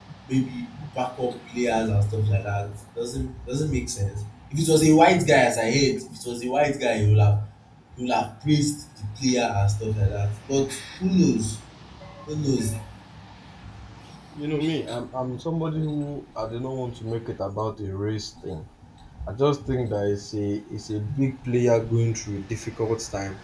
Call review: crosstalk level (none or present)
none